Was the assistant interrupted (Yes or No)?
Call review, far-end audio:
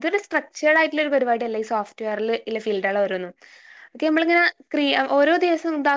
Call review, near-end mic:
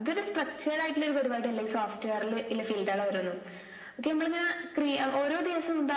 No